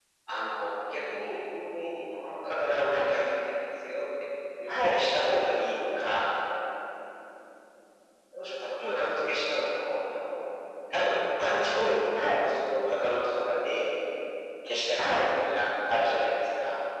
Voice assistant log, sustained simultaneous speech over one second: none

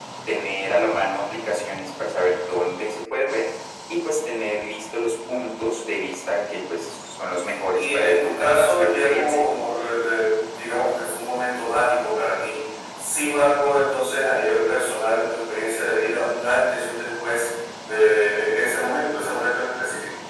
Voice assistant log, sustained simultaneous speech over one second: present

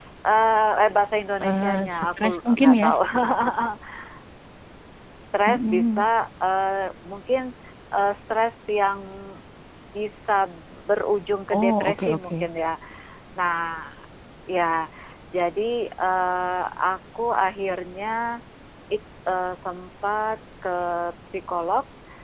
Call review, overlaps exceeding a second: present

